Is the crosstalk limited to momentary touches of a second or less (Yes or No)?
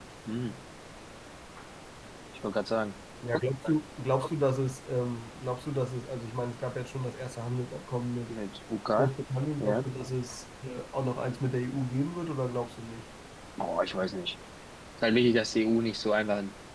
Yes